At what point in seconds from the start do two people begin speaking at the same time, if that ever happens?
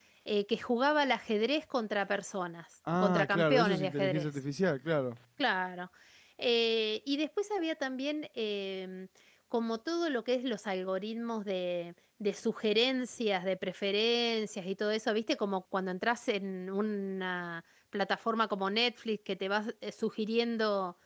3 s

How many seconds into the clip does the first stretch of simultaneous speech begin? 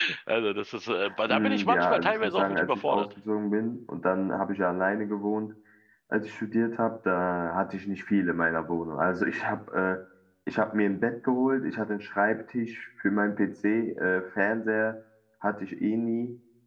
1 s

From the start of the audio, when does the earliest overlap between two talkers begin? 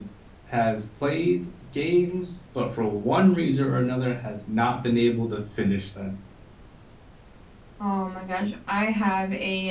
none

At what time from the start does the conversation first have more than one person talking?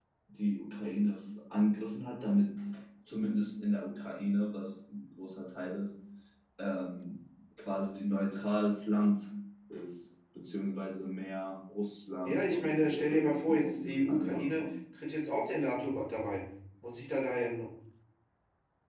12 s

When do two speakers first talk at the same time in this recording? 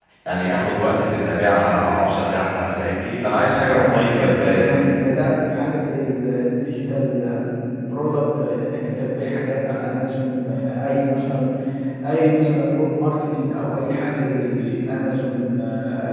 4 s

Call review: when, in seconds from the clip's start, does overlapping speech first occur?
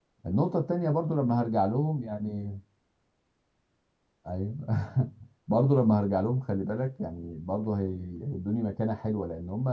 none

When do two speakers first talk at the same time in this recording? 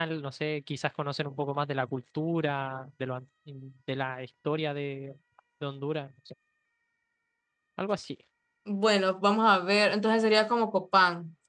none

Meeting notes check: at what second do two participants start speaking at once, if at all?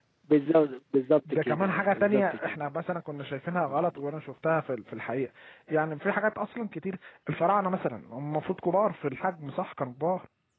1 s

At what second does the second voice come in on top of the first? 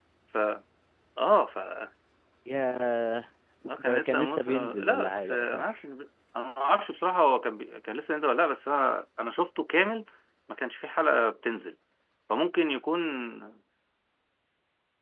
4 s

